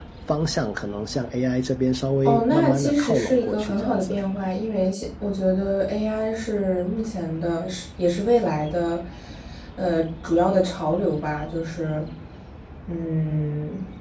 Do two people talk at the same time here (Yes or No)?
Yes